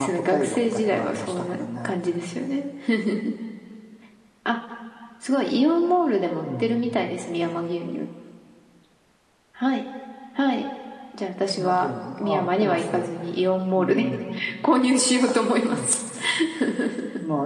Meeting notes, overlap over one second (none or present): present